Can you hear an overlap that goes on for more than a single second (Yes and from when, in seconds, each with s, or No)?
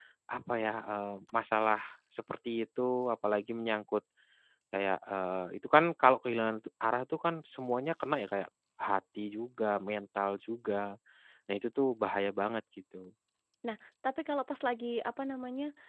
No